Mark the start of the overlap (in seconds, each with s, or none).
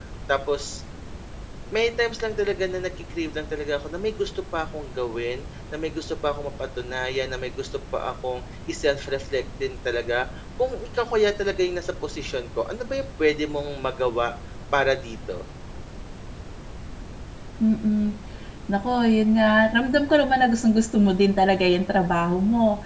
none